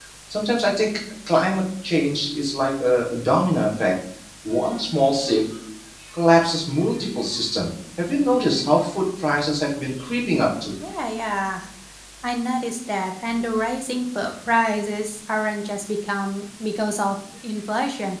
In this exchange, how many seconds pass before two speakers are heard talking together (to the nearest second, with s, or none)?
none